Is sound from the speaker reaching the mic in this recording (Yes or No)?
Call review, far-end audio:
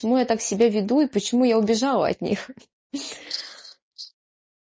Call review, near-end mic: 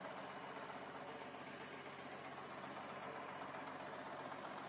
No